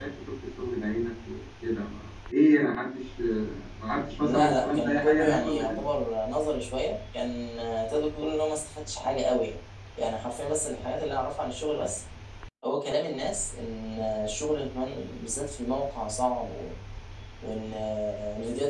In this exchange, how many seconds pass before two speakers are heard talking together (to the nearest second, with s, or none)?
4 s